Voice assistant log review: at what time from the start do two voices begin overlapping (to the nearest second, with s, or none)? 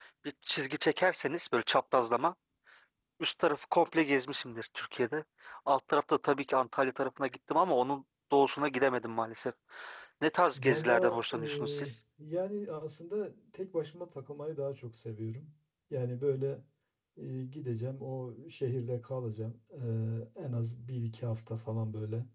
11 s